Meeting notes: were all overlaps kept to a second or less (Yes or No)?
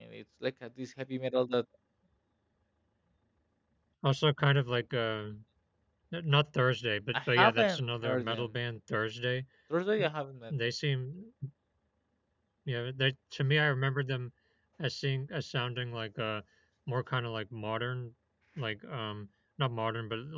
No